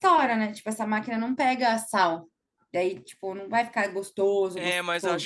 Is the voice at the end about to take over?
Yes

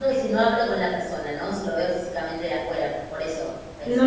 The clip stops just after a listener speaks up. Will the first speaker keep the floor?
No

